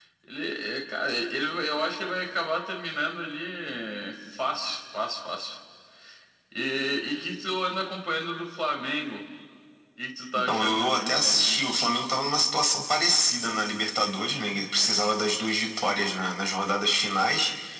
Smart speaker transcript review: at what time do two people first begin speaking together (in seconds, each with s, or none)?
10.3 s